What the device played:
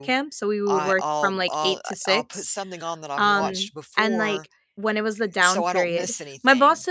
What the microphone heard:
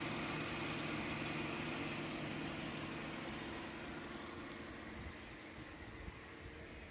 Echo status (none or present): none